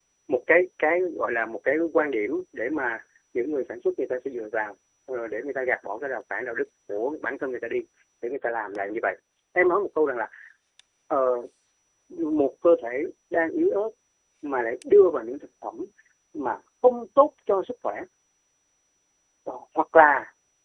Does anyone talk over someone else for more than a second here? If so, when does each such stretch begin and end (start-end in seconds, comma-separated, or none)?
none